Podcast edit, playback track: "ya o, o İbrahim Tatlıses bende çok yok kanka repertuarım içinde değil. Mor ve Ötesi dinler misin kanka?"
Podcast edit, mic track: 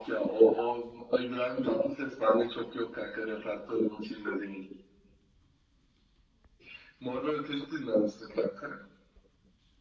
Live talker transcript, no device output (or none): none